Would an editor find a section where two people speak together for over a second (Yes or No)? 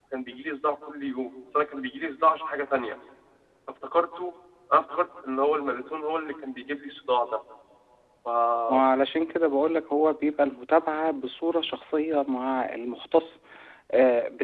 No